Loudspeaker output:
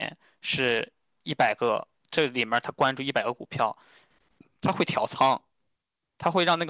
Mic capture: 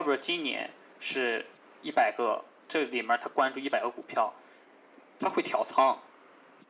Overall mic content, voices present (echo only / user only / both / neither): echo only